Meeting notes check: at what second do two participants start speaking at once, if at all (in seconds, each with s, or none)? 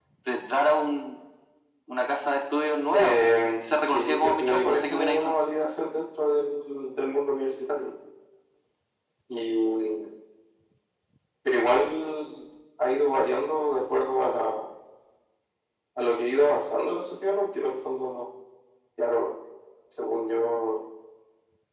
2.9 s